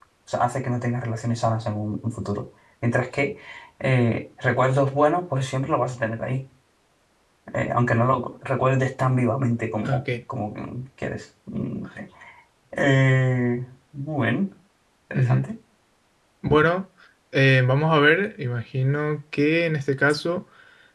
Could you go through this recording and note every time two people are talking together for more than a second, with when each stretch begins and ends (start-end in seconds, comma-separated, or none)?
none